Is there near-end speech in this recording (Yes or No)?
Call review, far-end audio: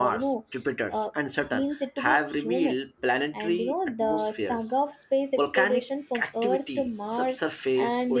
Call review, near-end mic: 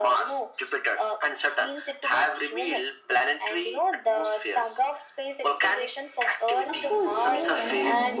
Yes